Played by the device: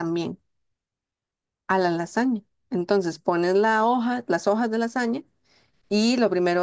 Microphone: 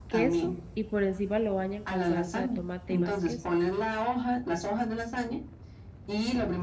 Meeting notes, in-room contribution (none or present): present